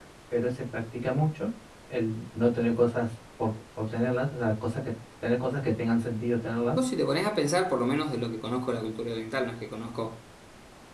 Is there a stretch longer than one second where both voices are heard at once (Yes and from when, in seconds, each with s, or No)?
No